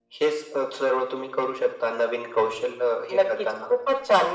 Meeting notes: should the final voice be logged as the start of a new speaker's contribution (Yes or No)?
Yes